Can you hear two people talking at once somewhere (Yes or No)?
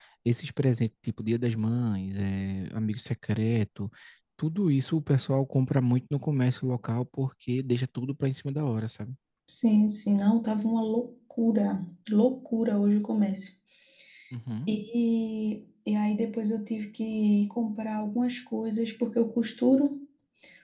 No